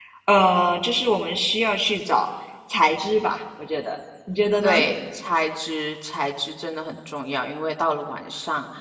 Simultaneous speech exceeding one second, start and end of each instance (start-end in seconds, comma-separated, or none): none